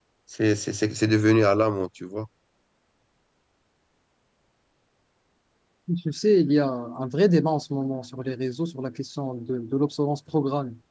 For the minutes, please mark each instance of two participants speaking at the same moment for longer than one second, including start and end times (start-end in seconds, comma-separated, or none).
none